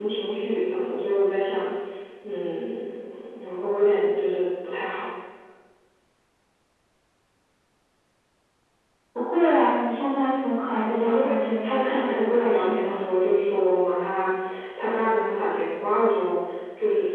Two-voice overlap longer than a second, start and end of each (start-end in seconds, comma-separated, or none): 10.7-13.0